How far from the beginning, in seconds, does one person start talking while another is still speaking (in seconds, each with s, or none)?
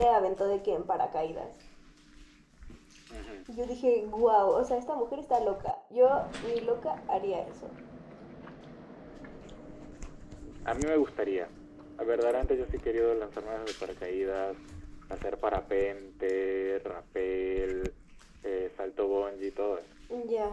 none